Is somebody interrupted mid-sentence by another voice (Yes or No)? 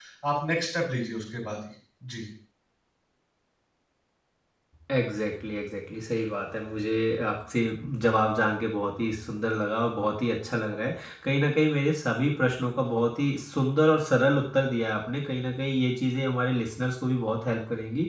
No